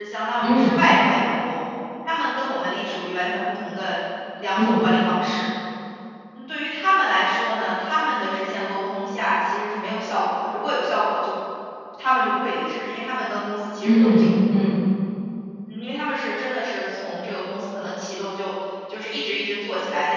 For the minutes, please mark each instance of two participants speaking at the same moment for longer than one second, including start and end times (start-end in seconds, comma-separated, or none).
none